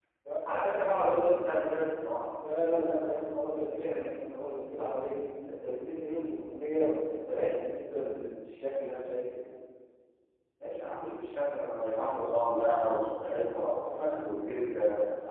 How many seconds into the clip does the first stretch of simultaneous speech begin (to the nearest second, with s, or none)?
none